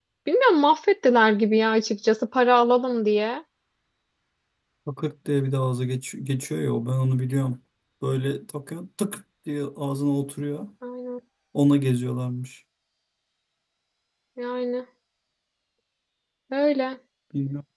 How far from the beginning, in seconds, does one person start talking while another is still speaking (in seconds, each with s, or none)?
none